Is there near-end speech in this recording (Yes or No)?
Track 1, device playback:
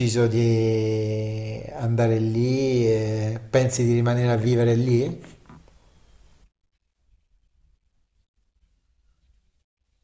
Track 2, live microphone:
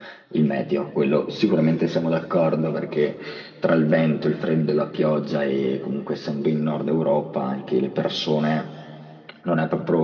Yes